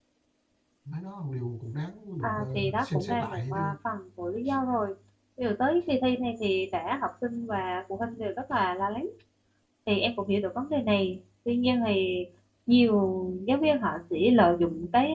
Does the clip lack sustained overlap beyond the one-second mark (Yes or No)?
No